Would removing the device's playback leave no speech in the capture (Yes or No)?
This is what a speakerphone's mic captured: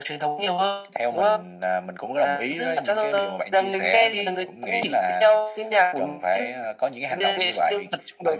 Yes